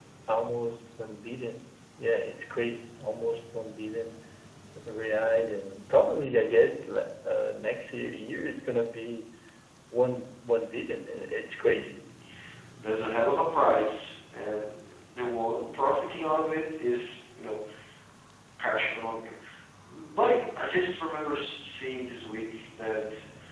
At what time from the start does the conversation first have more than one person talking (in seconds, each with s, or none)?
none